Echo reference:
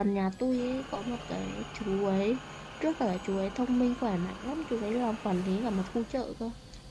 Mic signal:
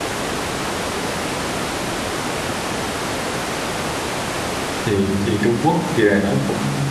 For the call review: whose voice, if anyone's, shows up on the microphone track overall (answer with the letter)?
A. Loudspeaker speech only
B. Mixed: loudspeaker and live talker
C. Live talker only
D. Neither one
C